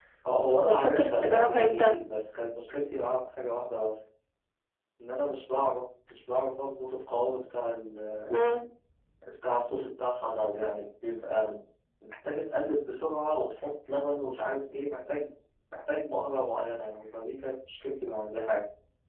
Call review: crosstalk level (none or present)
present